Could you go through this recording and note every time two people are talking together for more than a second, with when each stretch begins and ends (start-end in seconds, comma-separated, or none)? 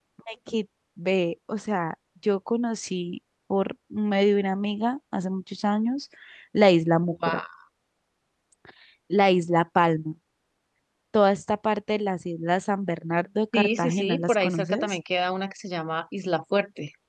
13.5-15.0